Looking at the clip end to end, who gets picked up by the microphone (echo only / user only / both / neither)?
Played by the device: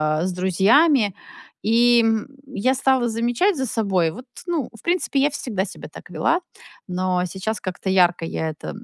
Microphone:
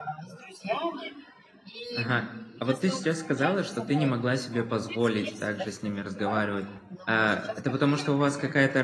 both